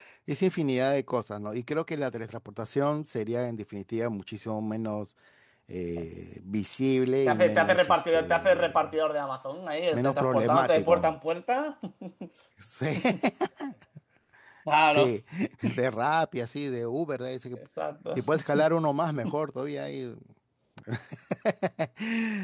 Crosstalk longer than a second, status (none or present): present